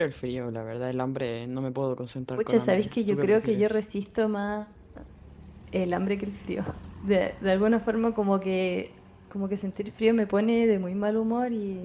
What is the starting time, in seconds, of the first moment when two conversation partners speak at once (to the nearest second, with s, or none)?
2 s